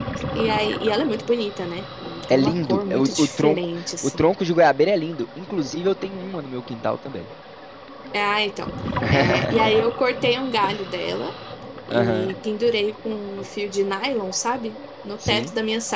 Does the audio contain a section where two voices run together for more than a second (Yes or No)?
Yes